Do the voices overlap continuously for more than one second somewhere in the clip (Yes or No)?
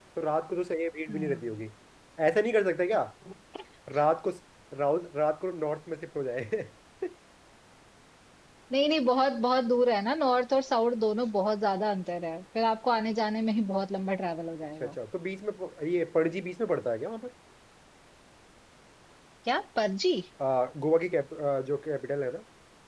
No